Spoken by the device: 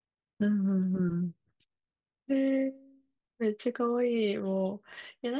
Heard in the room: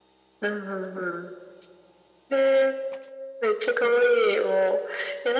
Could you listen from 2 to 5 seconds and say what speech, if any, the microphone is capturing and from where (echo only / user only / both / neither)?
echo only